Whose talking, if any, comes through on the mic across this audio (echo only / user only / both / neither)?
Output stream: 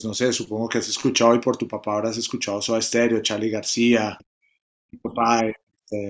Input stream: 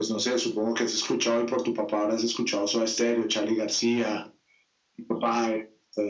echo only